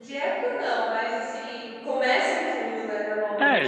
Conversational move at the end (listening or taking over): taking over